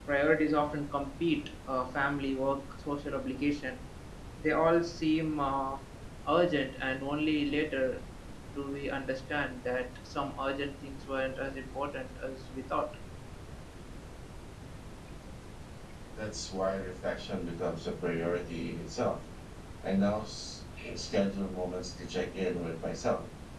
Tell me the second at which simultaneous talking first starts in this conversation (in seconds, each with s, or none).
none